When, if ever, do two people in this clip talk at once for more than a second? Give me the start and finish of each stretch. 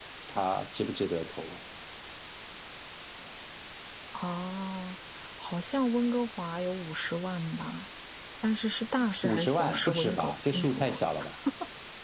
9.2-11.0

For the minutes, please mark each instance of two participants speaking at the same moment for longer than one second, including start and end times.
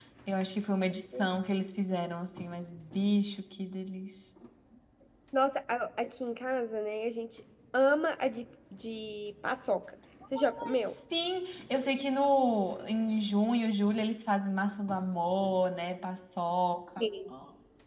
none

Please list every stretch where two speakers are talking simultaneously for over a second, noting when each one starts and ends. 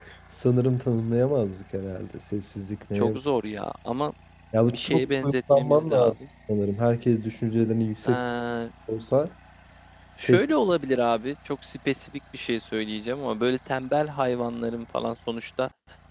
4.7-6.1

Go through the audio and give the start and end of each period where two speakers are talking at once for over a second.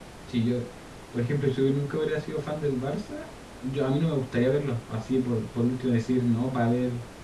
none

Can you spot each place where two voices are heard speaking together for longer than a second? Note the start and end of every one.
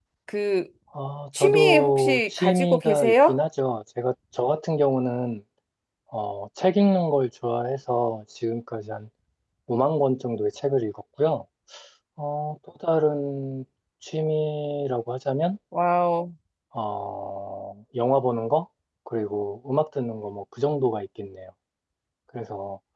1.3-3.4

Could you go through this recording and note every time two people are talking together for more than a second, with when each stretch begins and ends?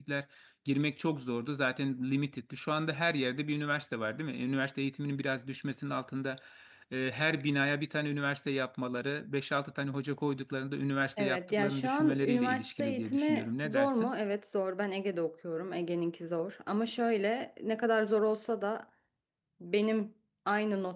11.2-14.1

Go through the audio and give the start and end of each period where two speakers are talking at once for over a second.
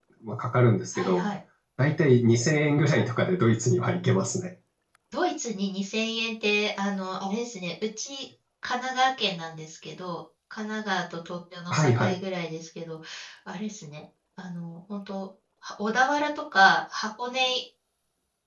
none

